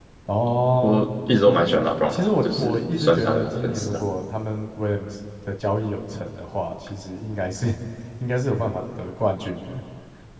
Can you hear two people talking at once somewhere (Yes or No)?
Yes